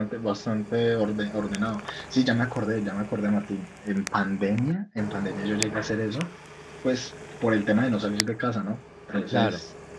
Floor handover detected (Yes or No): No